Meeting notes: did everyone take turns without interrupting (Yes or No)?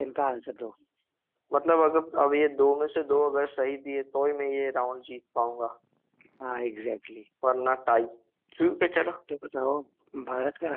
Yes